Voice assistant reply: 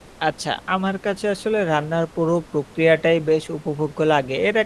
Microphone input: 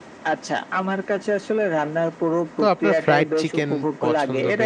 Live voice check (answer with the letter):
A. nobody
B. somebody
B